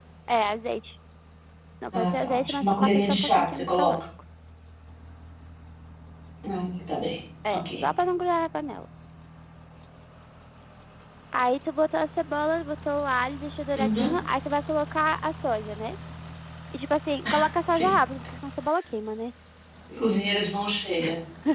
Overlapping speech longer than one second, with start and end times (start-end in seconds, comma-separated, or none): 1.9-3.9